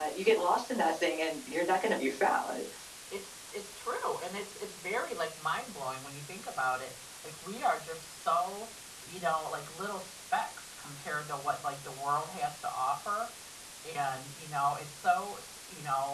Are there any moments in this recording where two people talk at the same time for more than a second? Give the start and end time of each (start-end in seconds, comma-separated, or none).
none